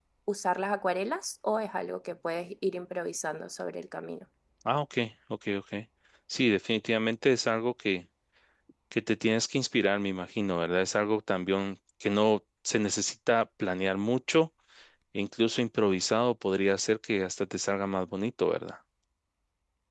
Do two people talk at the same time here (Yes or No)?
No